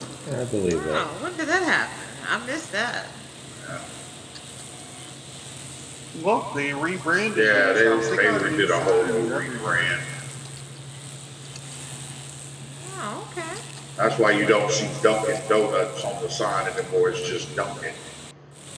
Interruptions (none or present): present